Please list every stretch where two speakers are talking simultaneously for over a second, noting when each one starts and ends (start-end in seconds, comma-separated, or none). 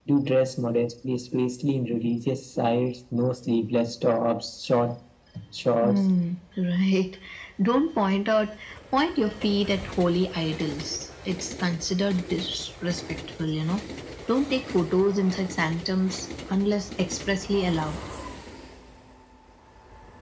none